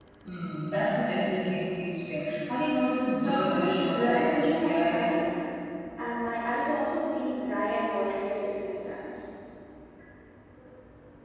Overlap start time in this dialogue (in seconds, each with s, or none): 3.1 s